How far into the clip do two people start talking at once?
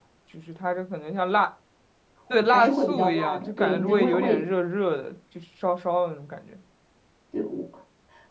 2.5 s

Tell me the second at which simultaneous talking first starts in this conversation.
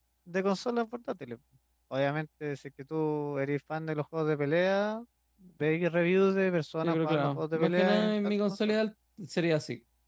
6.8 s

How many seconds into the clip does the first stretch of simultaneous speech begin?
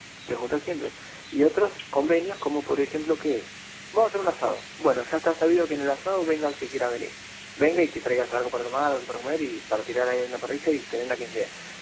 none

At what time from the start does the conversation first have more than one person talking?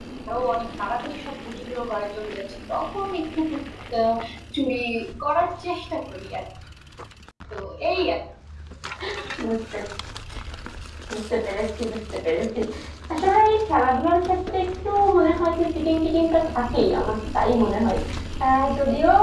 none

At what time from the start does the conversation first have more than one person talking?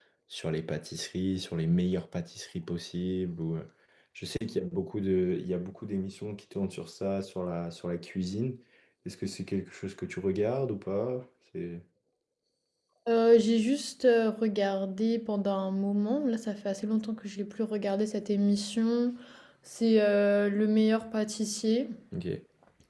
none

